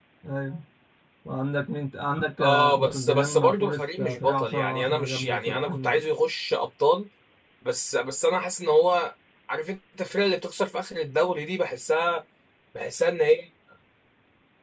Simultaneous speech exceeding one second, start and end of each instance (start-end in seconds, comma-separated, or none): 2.4-6.0